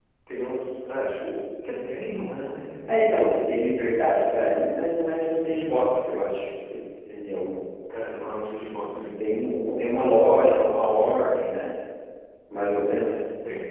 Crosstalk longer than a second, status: none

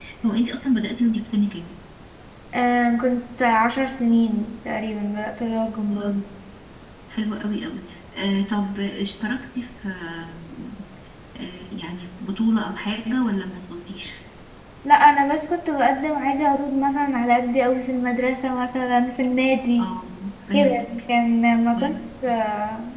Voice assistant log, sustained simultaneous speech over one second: none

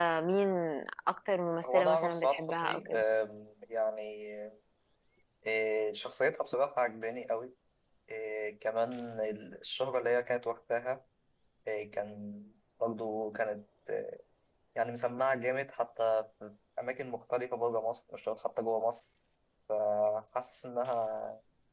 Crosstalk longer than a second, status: present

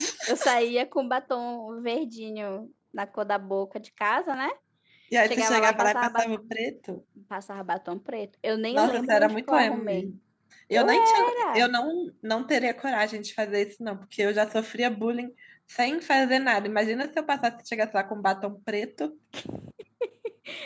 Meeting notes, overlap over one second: present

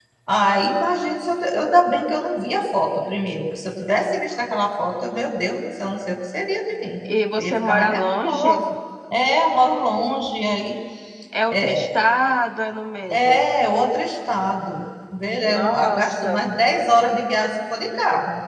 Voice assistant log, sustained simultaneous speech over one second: present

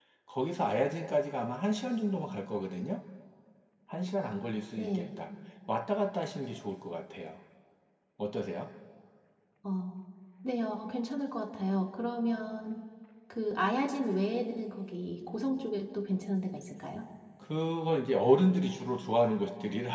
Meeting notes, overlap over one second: none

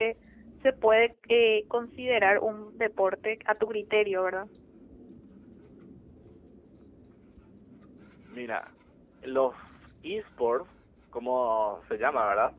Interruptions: none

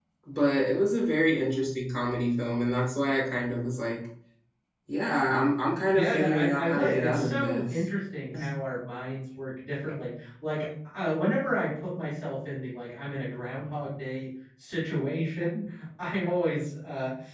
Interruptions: present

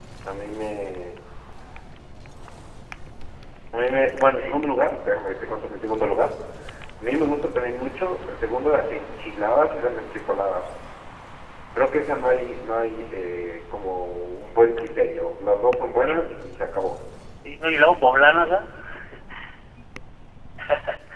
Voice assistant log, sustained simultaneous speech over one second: none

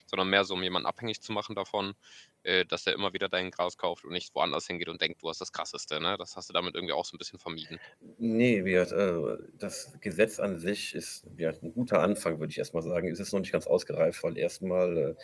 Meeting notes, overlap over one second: none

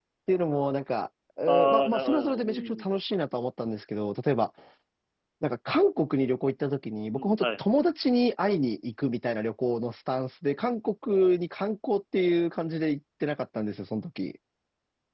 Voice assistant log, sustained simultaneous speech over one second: present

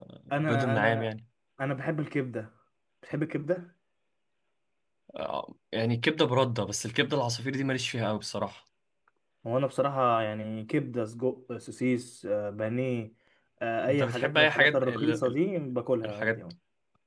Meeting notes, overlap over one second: present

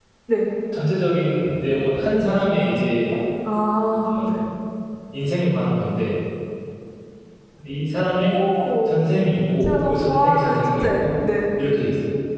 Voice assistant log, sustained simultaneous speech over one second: present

